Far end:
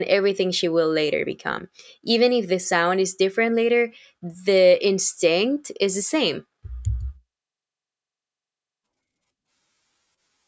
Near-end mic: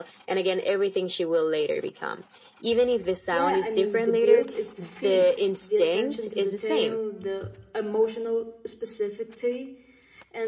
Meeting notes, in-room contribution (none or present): present